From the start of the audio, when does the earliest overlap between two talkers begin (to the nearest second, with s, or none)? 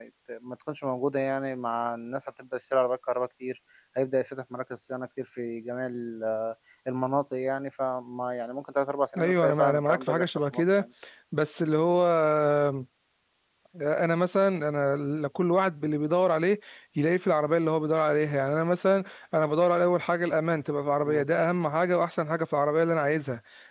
9 s